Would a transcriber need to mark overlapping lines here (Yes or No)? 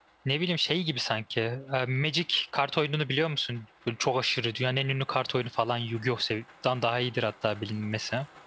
No